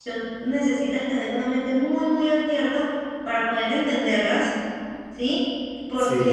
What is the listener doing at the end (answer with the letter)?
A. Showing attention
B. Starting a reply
A